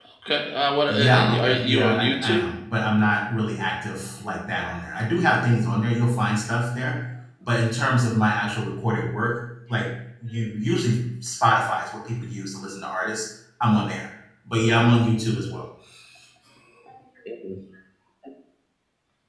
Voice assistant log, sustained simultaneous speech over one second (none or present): present